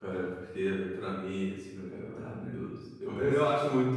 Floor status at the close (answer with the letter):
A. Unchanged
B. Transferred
A